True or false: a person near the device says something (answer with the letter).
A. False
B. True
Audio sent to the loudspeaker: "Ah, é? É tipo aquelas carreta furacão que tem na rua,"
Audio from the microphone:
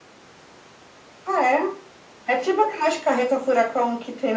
A